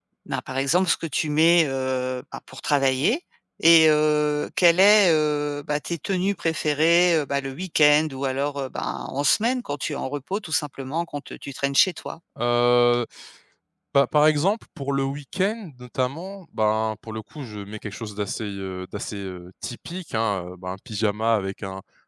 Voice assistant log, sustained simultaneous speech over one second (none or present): none